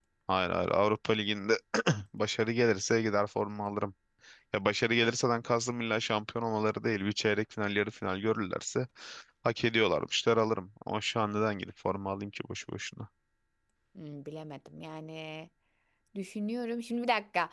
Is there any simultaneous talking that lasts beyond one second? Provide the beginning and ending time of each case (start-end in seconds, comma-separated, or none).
none